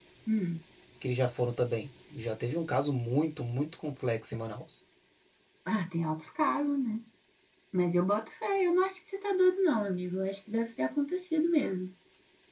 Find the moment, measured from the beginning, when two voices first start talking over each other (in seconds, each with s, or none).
none